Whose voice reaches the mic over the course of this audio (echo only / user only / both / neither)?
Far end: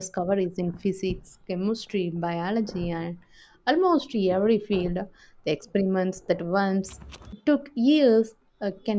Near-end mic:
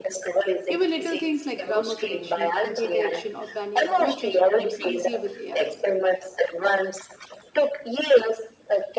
both